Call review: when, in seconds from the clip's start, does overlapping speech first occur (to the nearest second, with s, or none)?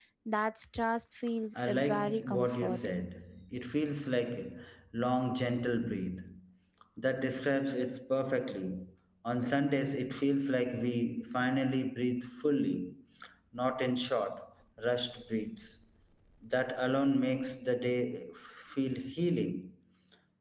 2 s